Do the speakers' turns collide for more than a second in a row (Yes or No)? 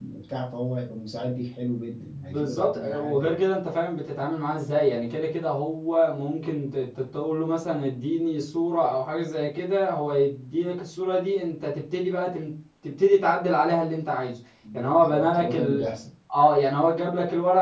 Yes